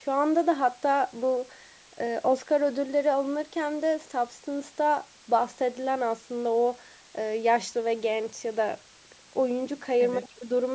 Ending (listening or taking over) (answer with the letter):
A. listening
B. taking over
A